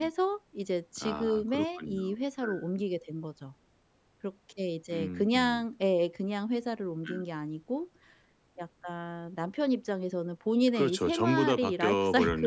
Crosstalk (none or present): present